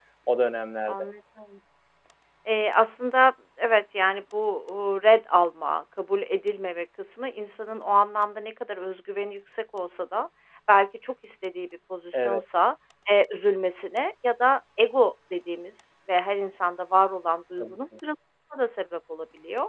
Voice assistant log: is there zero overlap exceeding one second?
Yes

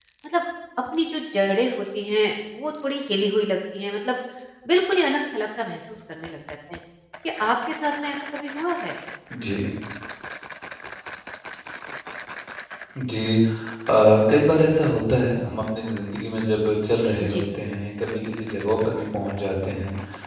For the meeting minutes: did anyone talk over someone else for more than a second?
No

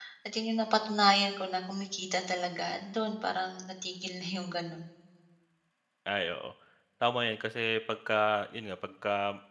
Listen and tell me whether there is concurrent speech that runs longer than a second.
No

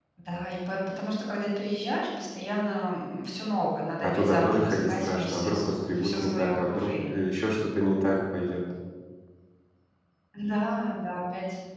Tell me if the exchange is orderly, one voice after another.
No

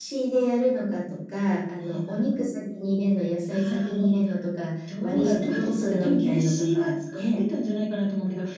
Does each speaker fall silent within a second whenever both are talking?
No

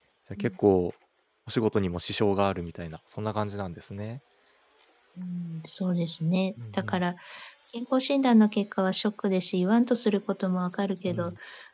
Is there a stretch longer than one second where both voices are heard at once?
No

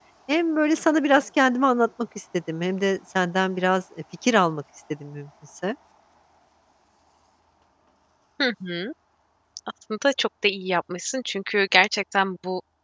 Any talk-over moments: No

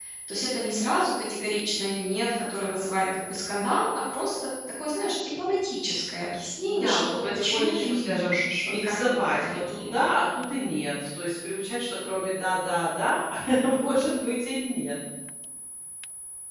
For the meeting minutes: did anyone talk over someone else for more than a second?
Yes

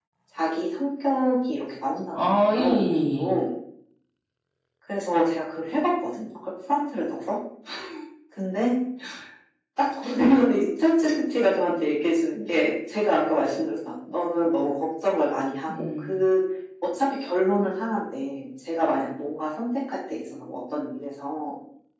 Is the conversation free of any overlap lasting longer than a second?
No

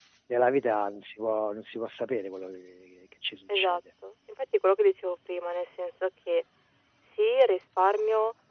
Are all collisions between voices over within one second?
Yes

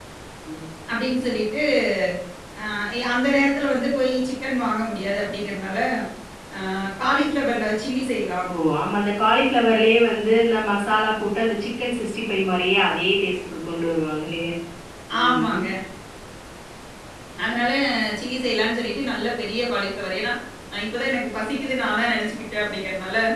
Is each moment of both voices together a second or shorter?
Yes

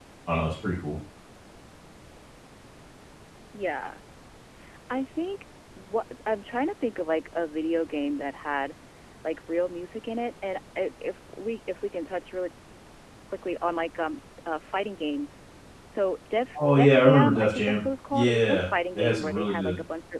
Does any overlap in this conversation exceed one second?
Yes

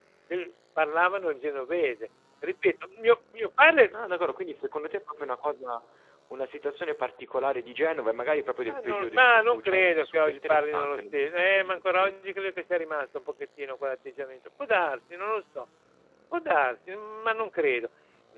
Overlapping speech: Yes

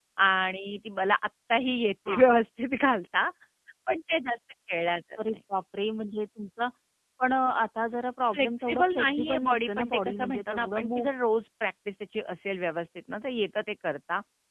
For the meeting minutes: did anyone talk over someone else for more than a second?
Yes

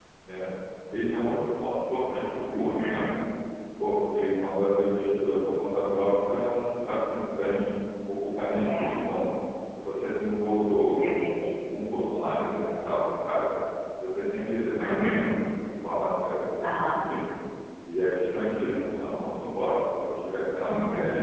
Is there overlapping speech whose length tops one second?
No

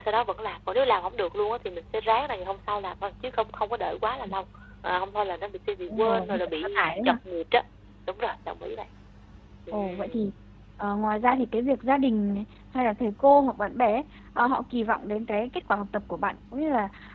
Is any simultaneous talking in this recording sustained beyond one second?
Yes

